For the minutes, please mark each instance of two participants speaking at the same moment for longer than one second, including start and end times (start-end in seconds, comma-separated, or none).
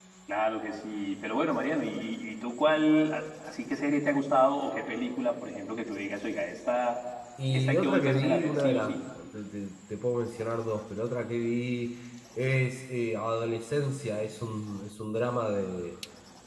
7.5-9.0